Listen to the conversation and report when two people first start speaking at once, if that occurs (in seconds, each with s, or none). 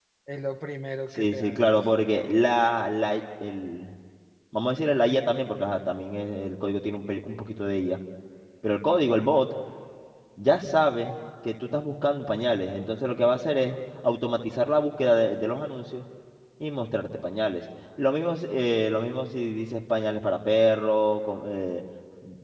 1.1 s